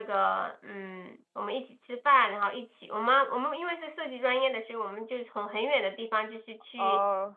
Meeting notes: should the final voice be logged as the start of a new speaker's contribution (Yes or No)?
No